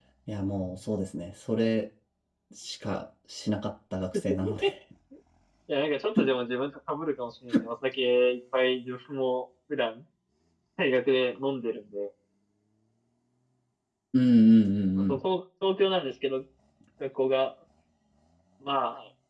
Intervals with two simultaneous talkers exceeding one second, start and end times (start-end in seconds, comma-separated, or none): none